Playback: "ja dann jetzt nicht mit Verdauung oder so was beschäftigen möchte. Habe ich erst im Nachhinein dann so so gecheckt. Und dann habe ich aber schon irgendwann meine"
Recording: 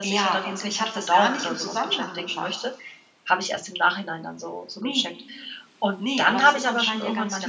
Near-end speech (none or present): present